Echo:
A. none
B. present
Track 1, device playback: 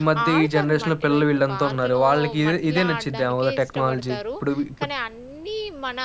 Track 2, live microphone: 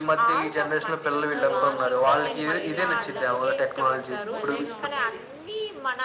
B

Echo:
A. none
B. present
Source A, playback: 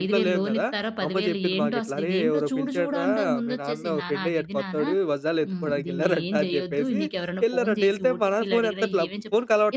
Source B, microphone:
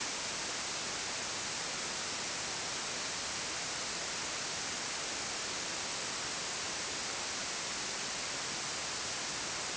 A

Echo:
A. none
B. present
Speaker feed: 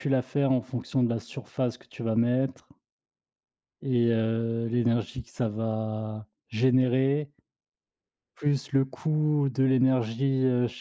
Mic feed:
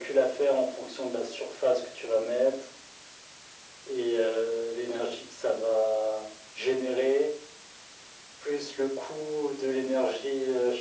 B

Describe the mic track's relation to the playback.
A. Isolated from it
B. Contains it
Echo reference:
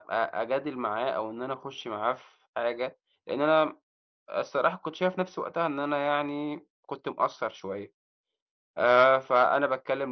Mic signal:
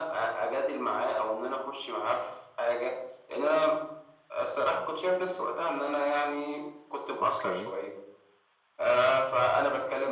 B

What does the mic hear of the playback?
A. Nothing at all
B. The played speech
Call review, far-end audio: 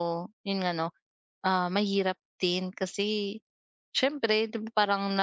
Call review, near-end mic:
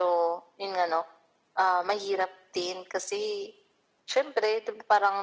B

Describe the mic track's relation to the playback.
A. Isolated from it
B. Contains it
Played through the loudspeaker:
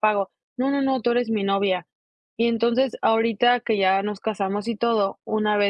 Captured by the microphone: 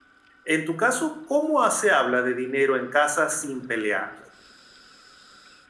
A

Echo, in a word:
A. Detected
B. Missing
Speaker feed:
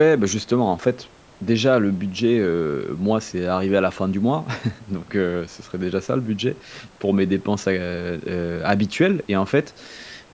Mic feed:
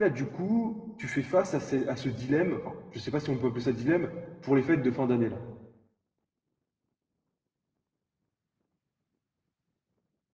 B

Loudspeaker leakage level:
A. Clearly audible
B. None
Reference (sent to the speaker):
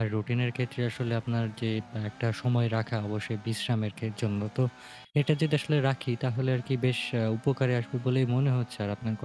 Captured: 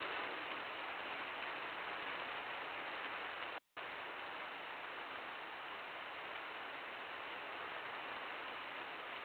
B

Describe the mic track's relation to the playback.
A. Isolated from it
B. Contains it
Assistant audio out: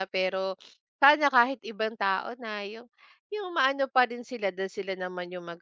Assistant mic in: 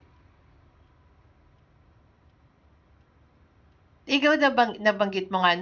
A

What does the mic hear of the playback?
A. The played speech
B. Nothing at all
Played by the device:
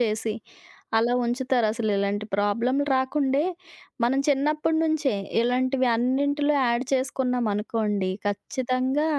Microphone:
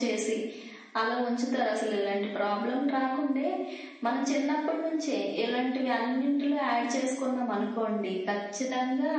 A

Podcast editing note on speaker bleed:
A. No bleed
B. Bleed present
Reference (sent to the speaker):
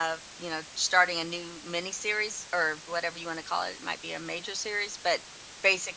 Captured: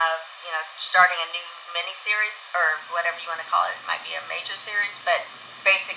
B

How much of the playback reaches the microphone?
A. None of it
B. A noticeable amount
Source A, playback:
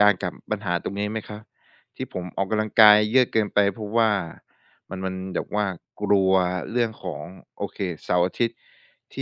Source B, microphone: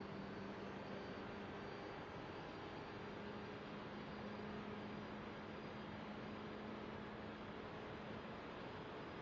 A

